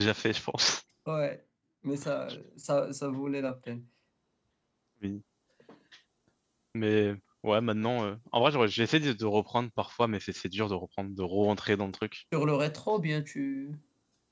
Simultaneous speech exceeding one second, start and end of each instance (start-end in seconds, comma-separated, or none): none